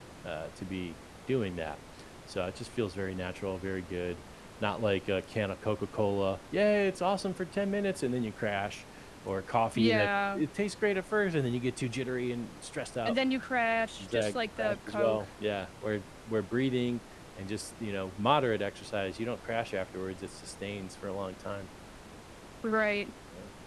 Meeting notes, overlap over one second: present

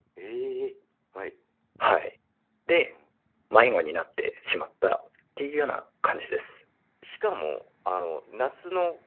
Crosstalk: none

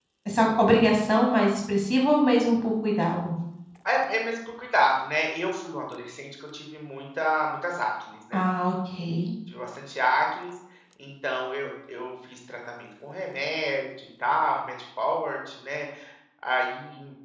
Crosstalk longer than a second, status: none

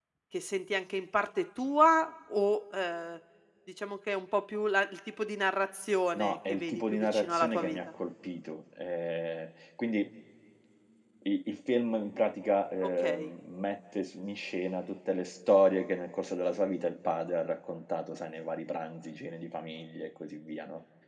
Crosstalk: present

